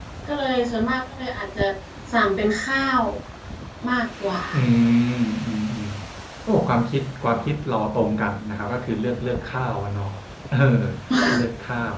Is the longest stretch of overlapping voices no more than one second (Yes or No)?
Yes